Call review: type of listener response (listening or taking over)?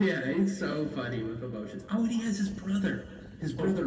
taking over